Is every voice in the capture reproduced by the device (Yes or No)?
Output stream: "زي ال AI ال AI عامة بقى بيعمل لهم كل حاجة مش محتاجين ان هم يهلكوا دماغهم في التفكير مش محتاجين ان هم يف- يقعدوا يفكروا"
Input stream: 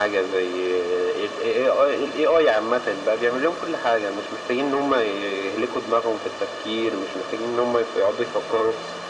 Yes